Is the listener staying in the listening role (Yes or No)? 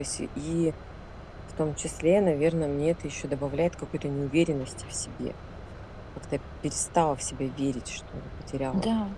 No